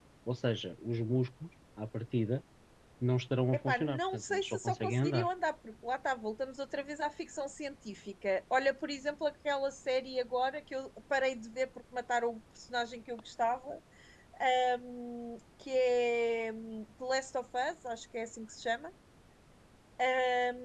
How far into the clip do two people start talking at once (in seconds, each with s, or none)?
3.5 s